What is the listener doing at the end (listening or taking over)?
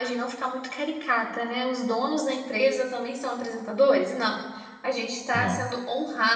listening